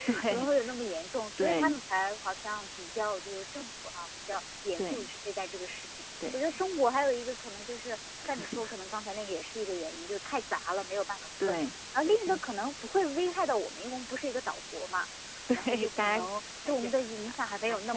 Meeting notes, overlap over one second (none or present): present